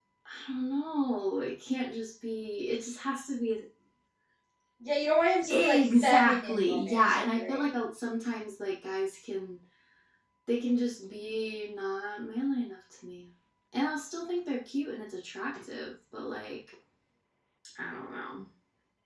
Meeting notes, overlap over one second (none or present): present